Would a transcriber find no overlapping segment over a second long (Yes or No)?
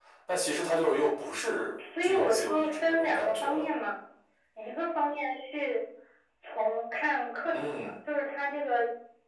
No